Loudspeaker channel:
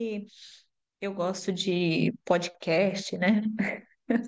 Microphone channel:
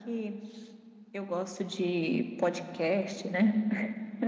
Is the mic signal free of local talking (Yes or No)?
Yes